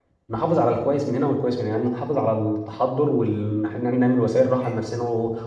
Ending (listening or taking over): listening